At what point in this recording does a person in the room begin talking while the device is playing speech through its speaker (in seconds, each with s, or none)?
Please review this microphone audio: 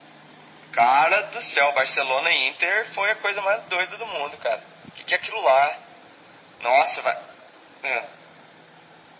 none